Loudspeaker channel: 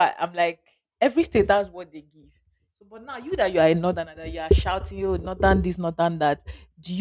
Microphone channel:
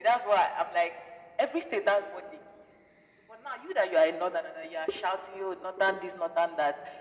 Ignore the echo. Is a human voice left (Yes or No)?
No